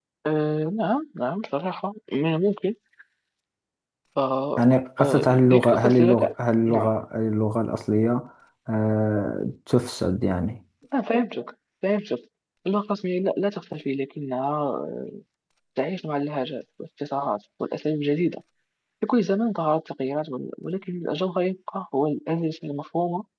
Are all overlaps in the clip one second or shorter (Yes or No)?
No